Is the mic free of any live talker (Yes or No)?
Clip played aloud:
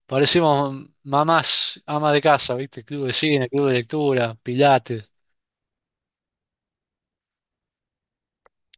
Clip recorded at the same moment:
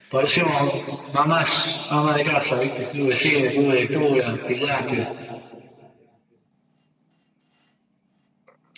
Yes